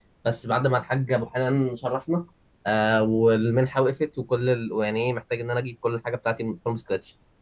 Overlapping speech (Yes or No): No